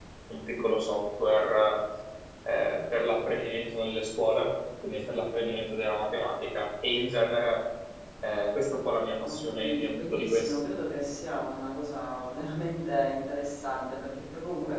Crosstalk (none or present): present